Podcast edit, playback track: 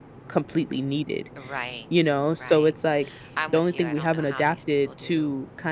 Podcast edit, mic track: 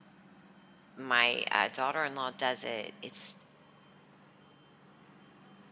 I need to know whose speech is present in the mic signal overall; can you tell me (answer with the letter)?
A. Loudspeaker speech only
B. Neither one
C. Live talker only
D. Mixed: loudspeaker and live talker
C